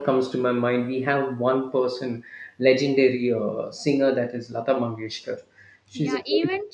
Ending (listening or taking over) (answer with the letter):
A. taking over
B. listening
A